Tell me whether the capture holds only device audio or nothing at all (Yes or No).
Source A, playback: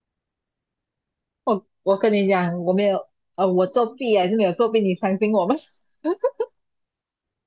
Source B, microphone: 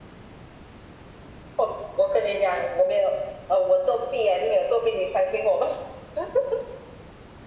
Yes